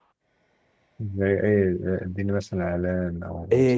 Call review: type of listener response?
taking over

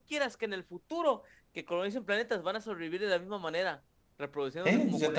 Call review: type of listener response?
taking over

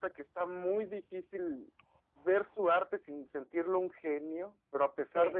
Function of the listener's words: listening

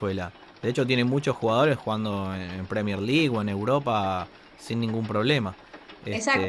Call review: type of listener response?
taking over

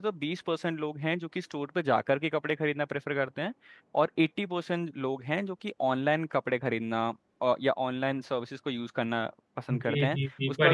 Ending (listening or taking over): taking over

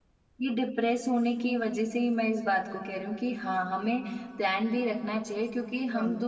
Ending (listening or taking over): listening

